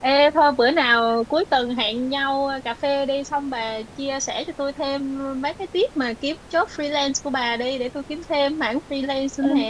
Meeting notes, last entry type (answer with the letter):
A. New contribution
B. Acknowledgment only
A